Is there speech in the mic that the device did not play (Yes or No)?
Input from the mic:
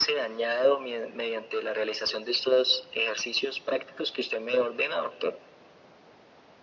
No